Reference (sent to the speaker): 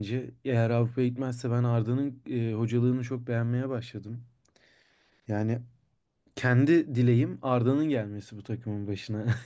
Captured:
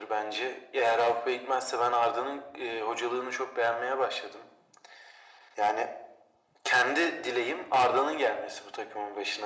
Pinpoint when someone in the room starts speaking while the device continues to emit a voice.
none

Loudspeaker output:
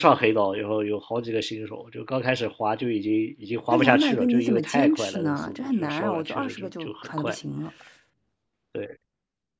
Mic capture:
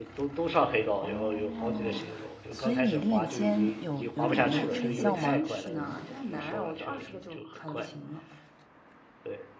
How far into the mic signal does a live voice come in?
1.0 s

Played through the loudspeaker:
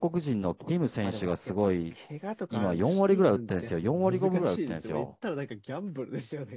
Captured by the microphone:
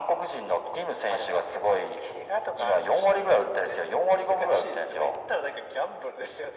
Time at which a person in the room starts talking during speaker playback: none

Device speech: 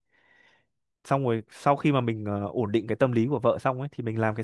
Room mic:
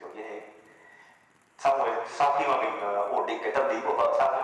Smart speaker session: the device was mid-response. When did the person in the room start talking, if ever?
none

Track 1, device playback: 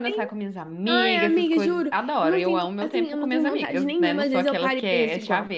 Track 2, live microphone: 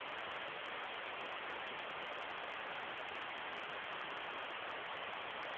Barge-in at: none

